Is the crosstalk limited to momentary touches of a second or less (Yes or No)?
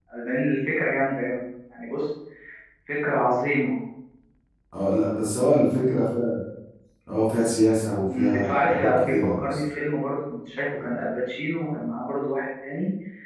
No